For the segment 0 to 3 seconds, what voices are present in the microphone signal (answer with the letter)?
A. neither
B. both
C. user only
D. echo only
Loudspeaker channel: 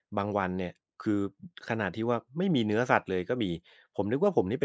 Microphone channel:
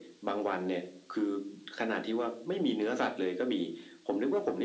D